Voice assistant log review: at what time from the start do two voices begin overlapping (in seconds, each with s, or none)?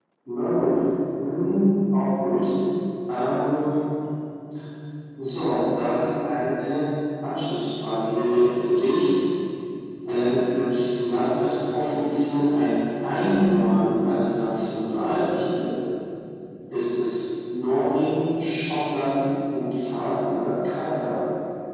none